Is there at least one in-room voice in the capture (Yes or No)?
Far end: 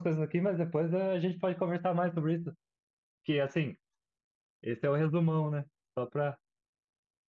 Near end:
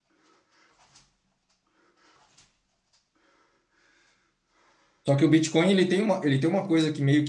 Yes